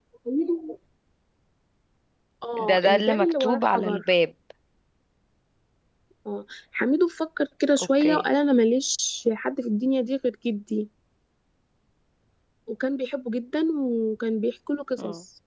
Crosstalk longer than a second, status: present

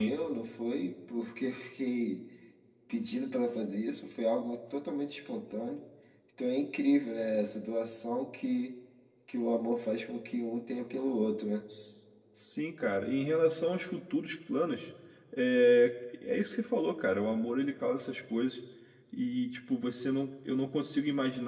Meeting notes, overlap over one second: none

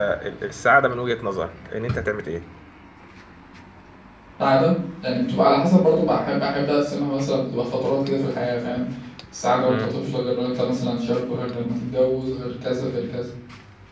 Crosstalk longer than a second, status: none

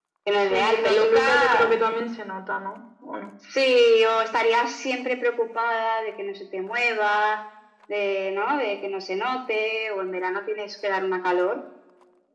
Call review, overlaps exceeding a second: present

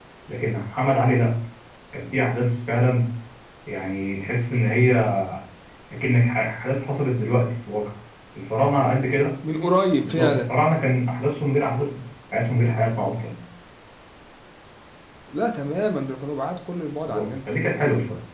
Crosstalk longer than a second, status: none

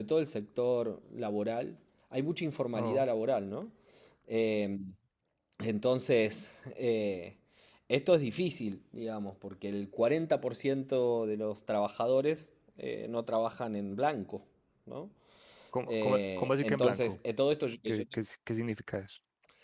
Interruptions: present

